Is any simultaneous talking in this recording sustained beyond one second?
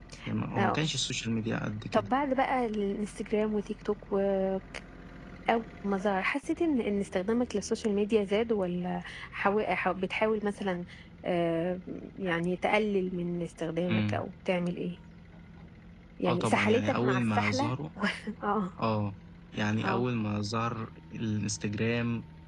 Yes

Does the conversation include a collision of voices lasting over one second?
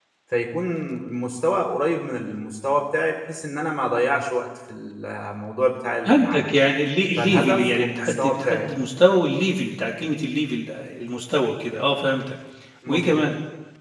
Yes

